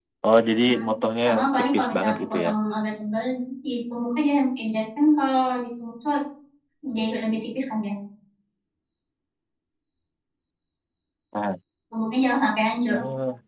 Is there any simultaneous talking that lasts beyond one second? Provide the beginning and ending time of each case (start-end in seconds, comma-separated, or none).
1.2-2.5